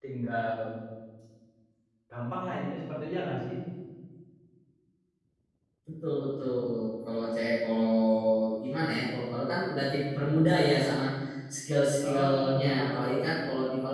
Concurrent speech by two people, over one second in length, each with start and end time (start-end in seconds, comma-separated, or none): 12.0-13.3